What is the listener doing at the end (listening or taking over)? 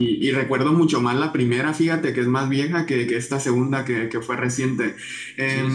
listening